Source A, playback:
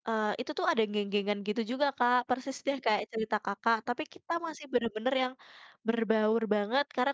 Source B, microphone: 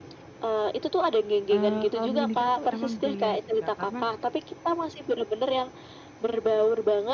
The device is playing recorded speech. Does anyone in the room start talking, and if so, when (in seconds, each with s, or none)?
1.5 s